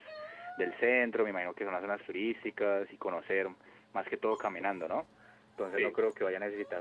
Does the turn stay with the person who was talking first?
Yes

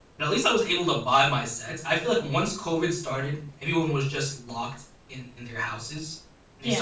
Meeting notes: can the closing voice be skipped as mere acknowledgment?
Yes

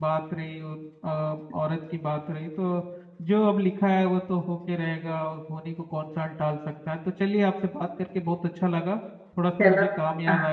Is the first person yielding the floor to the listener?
No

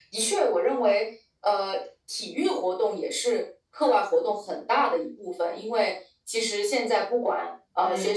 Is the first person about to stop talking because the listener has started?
No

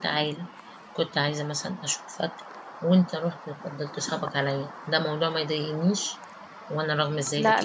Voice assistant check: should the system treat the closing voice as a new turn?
Yes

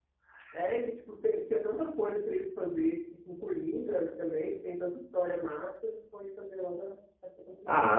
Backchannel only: No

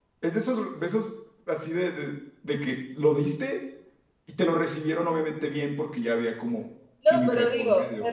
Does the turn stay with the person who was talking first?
No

